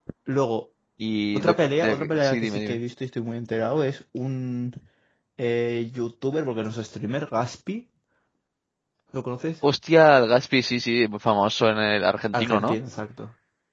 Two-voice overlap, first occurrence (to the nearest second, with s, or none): 1 s